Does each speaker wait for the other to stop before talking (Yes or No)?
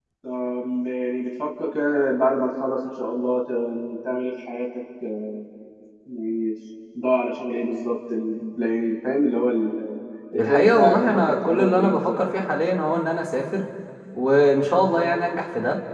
No